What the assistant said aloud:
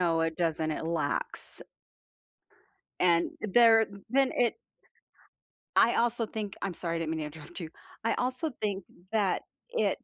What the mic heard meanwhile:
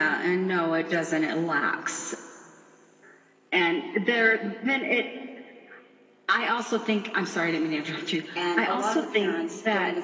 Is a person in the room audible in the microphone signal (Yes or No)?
Yes